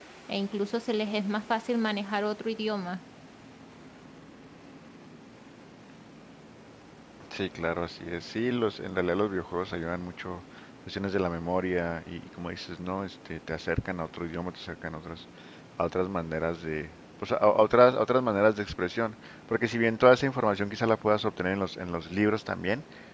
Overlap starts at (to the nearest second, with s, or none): none